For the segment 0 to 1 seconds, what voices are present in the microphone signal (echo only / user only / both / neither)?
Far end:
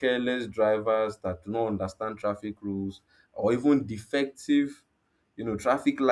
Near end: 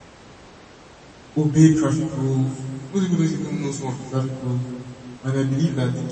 neither